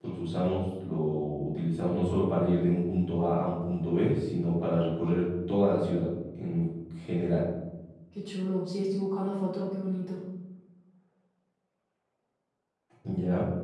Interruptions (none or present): none